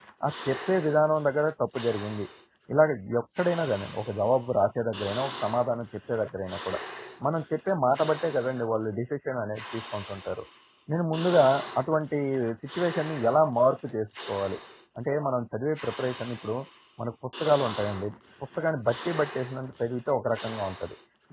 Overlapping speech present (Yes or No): No